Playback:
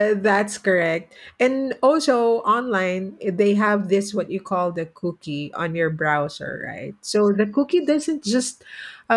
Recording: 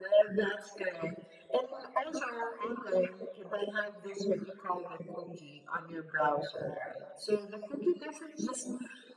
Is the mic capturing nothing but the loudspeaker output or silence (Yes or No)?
Yes